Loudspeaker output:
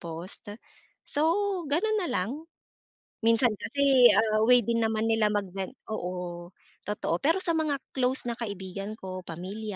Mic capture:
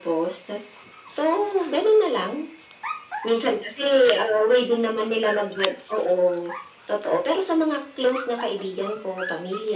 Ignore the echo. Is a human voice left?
No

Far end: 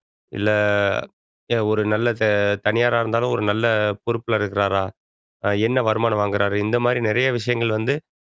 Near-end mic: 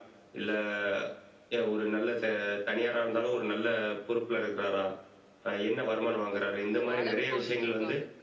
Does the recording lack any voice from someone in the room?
No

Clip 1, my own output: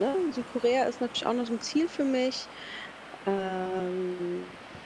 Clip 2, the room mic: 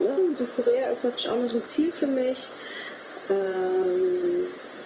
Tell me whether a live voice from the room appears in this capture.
No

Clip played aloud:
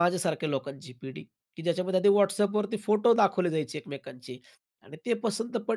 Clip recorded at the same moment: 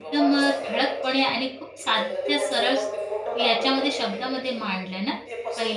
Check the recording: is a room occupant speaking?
Yes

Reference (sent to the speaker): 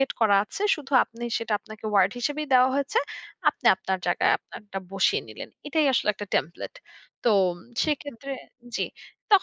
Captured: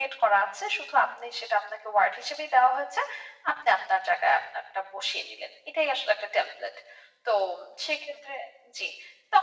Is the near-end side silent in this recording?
Yes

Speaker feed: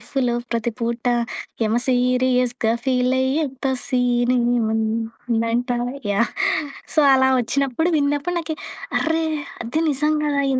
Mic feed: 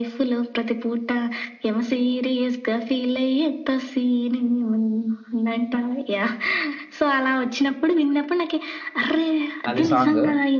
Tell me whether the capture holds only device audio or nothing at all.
No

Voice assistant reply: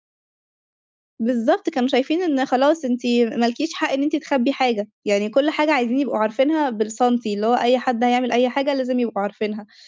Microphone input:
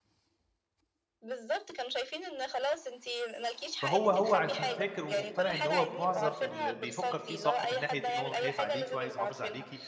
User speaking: Yes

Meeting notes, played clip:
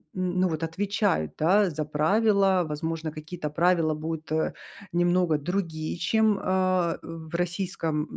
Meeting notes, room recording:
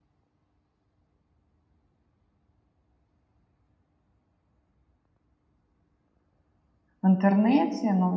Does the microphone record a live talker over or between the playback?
Yes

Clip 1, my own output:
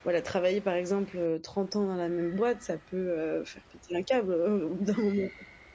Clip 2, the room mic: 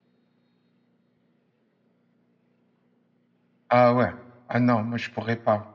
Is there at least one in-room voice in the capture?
Yes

